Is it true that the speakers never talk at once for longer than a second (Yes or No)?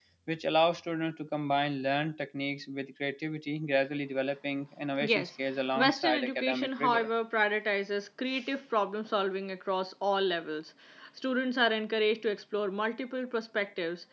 No